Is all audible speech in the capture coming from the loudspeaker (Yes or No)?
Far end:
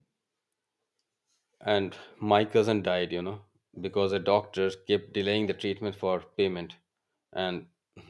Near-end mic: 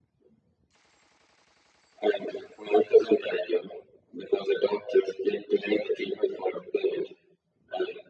Yes